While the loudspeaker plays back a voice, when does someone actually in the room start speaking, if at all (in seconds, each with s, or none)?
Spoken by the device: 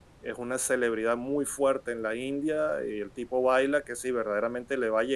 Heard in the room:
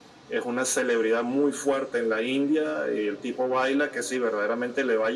none